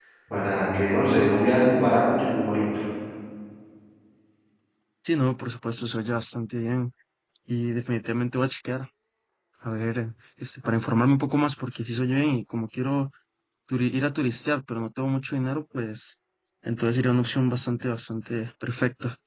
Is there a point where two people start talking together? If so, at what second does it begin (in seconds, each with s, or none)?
none